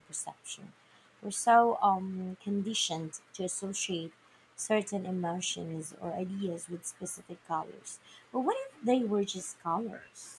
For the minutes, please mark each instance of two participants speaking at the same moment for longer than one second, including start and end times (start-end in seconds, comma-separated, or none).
none